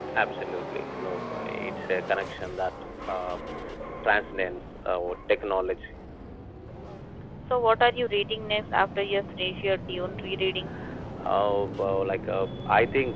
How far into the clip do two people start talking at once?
none

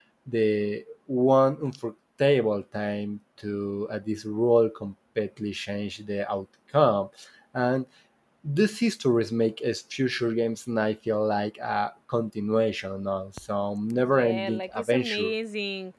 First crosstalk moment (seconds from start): 13.9 s

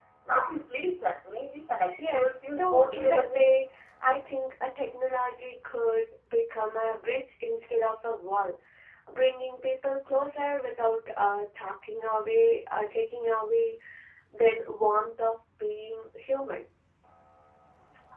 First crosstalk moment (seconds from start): 2.0 s

